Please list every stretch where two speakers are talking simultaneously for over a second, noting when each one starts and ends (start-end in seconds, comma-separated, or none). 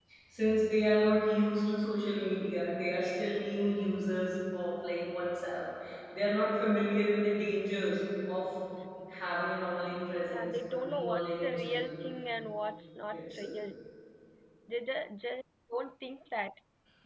10.3-12.0